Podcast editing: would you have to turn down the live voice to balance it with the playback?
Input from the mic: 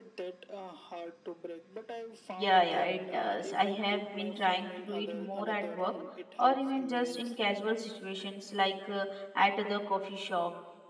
Yes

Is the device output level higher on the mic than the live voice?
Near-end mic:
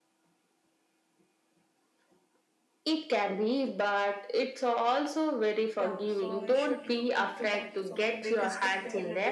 Yes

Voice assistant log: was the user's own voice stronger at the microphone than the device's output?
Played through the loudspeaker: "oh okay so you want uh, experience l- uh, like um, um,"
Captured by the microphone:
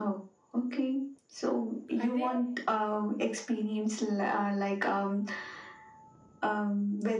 No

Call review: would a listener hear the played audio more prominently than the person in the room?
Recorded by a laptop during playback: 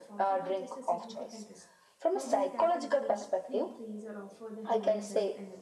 Yes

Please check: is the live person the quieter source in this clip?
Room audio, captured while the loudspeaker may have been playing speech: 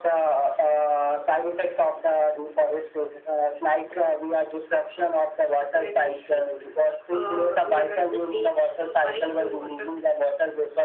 Yes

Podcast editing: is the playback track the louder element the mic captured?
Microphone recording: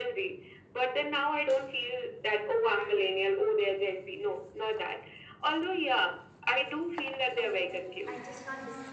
Yes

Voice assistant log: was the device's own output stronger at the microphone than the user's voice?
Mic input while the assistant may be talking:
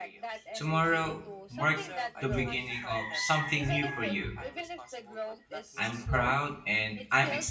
No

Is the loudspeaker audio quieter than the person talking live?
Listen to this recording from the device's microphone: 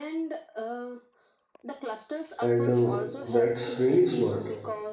Yes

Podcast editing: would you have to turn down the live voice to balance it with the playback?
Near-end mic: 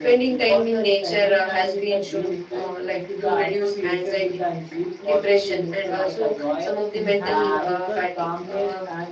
No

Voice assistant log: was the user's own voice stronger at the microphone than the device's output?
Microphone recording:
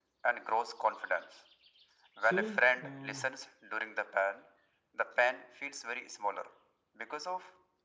No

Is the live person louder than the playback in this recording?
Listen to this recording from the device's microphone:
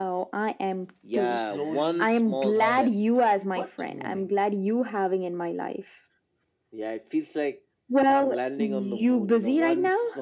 No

